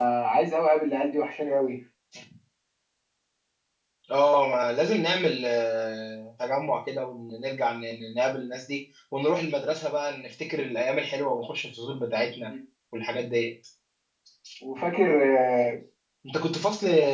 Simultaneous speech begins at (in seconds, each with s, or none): none